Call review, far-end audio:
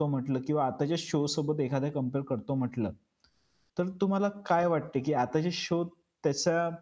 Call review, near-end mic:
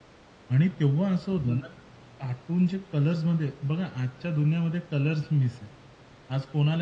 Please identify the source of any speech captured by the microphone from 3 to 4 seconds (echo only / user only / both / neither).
user only